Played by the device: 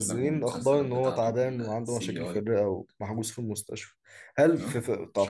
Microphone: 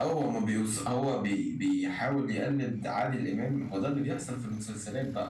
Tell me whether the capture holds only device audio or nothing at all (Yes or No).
No